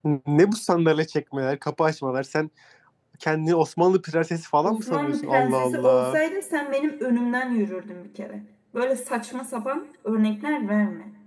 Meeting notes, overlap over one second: present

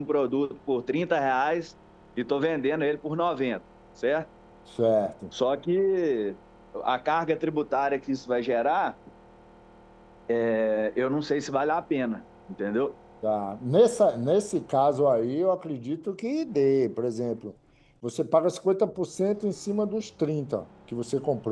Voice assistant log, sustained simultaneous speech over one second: none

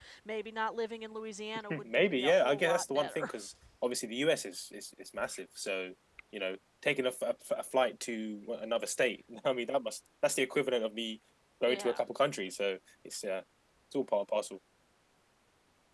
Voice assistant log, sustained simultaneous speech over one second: present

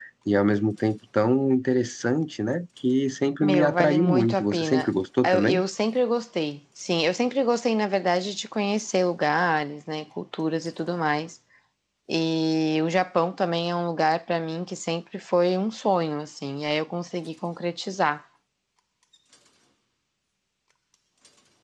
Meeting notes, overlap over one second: present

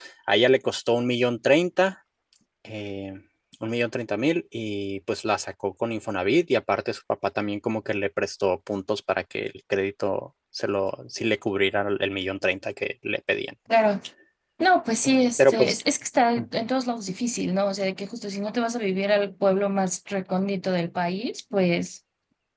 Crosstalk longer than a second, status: none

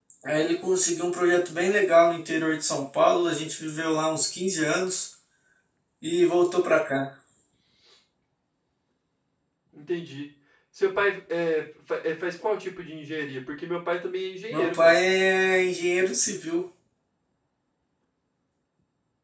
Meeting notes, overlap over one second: none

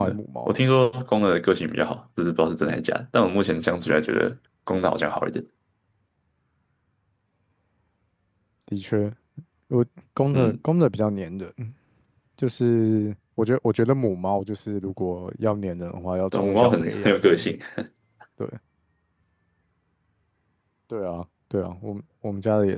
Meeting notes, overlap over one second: present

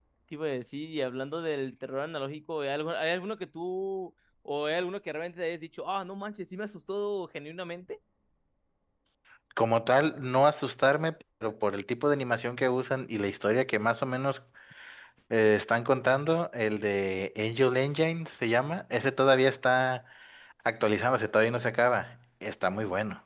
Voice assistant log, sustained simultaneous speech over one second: none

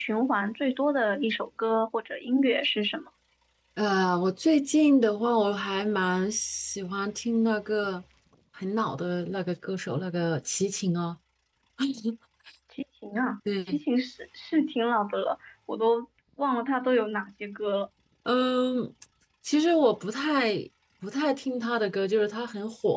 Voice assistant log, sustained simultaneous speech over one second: none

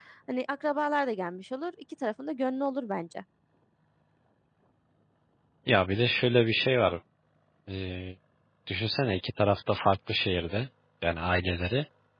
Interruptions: none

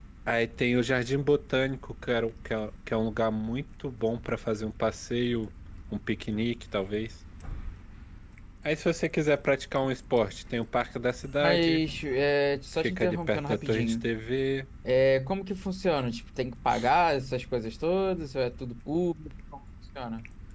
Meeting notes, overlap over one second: present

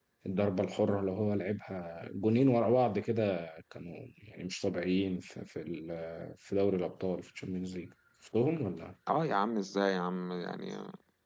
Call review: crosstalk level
none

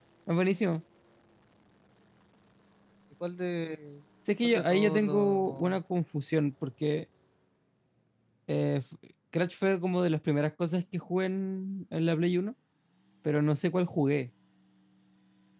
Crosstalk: present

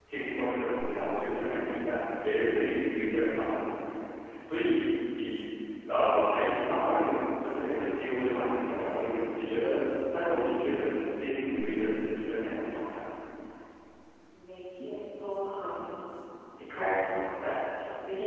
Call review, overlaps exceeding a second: none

